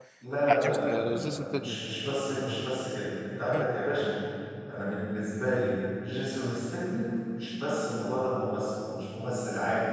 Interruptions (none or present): present